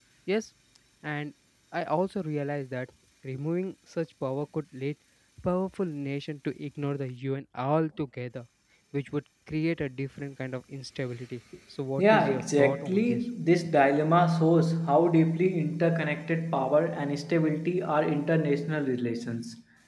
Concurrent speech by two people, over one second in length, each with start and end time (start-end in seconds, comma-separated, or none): 12.0-13.2